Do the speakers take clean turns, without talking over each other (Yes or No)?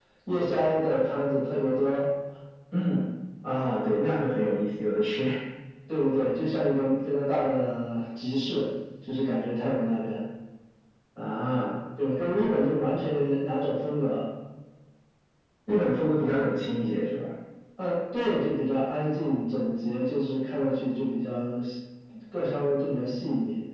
Yes